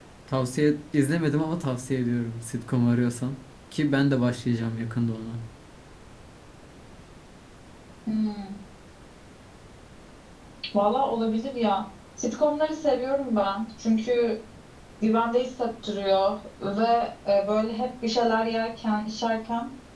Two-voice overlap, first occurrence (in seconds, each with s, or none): none